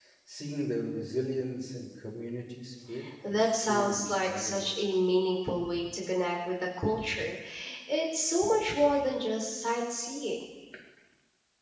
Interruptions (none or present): present